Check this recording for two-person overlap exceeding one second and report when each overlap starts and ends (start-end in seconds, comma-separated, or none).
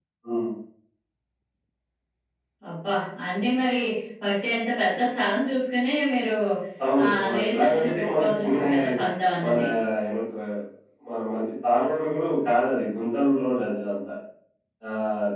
7.1-8.9